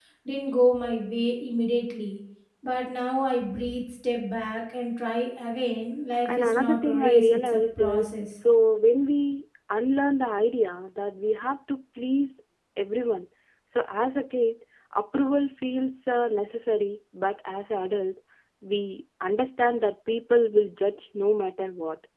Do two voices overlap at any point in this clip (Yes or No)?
Yes